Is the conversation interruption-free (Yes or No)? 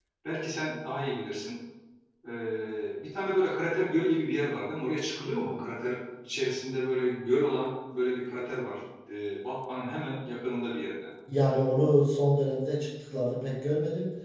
Yes